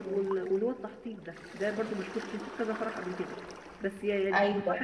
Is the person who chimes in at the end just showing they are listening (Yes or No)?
Yes